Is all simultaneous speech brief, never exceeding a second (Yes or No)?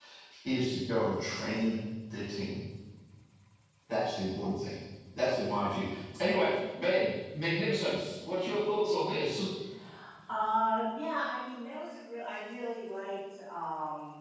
Yes